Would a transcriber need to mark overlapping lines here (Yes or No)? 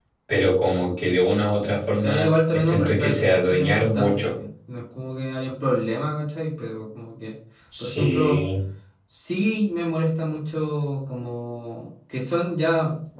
Yes